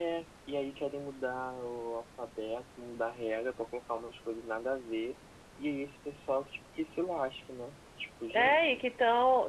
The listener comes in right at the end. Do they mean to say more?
Yes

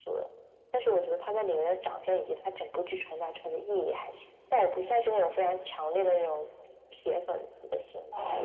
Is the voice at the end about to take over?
Yes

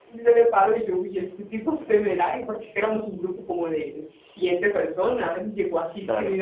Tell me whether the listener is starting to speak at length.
No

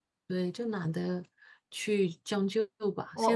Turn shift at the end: Yes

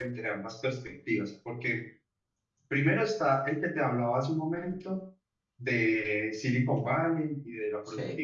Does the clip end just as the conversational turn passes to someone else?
No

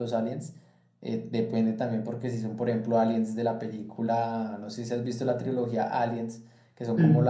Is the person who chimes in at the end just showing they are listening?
Yes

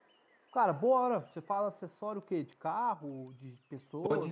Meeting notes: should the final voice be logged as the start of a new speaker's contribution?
Yes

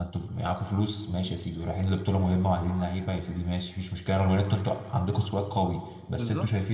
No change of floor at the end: Yes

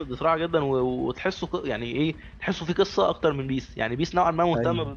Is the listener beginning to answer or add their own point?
No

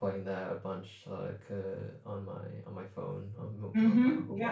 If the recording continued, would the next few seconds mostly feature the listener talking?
Yes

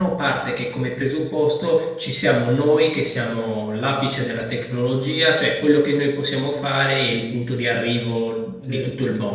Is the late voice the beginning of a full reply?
No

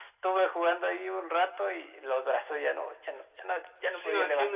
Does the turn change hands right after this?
Yes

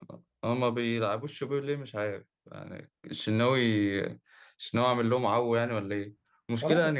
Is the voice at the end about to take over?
No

